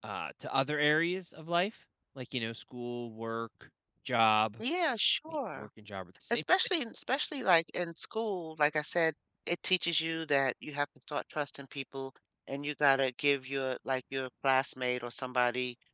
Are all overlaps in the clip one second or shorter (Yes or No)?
Yes